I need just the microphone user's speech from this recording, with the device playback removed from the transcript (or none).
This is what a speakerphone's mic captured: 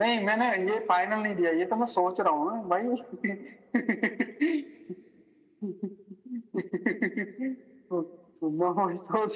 none